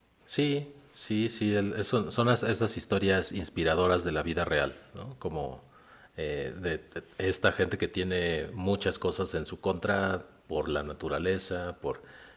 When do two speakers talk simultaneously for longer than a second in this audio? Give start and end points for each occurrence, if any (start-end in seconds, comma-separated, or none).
none